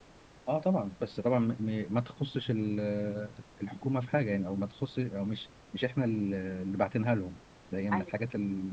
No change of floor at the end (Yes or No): Yes